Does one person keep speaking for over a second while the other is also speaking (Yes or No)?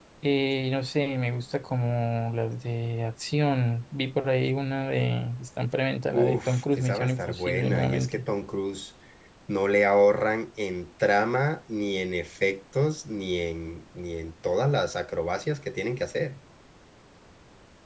Yes